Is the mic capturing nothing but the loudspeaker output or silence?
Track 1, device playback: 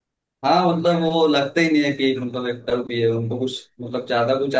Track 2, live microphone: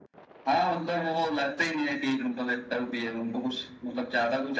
Yes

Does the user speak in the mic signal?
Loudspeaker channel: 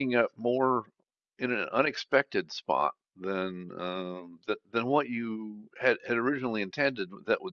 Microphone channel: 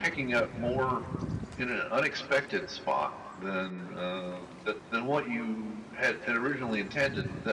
No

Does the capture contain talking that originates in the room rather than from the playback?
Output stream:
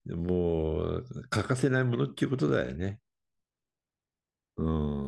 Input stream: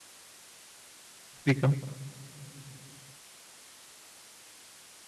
Yes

